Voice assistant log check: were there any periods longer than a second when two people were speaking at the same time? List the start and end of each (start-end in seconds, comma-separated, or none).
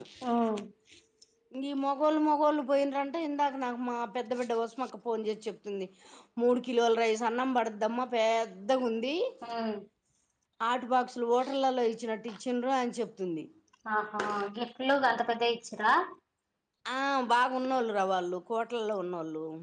none